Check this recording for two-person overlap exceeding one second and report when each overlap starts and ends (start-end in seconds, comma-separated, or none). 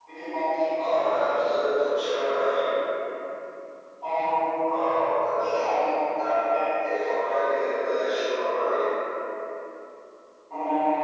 none